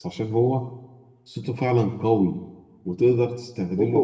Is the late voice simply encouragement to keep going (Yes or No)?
Yes